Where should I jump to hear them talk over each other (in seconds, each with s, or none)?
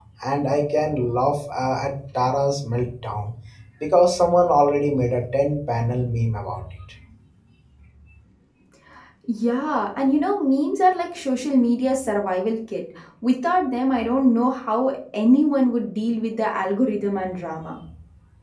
none